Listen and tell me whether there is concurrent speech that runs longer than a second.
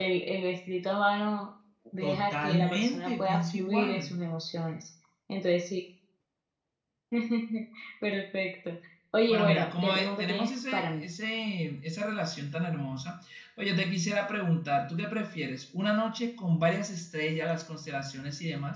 Yes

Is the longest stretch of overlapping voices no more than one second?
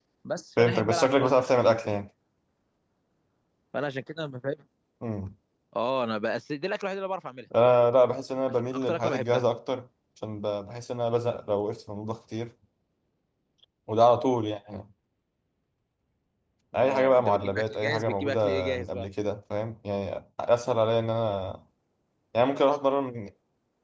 No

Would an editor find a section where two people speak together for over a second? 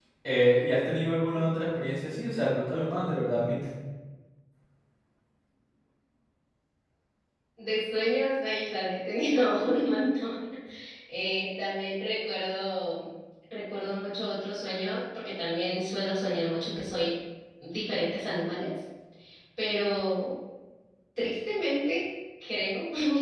No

